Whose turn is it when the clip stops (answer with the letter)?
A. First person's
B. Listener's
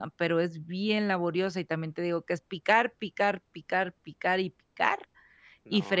A